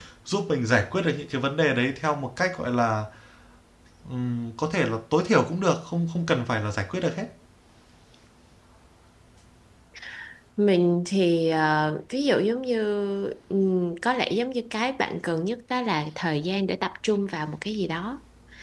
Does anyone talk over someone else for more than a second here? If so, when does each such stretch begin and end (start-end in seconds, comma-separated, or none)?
none